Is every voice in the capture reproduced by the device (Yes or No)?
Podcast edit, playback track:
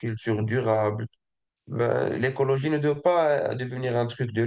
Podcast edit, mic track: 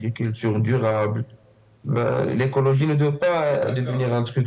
No